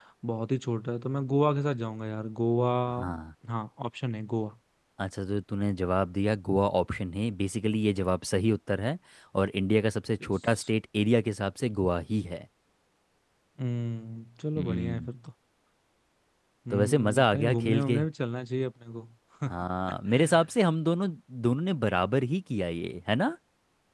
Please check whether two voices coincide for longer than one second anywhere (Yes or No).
Yes